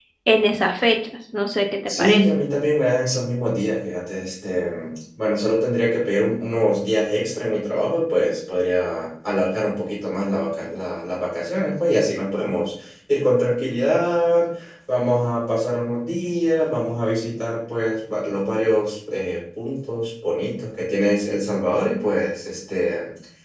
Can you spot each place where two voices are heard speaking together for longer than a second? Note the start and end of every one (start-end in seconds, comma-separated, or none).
none